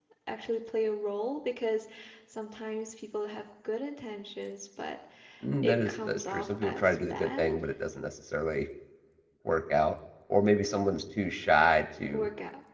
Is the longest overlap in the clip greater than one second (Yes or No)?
Yes